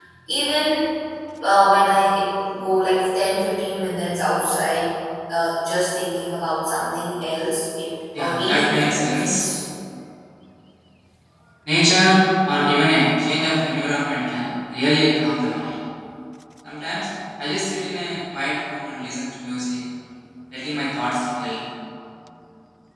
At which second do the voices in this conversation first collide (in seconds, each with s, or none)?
8.1 s